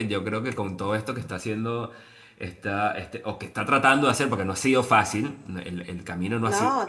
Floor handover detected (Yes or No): No